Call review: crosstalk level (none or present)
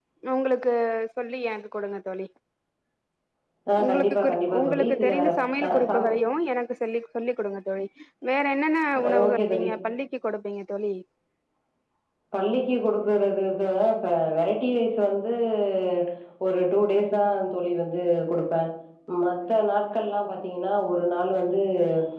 present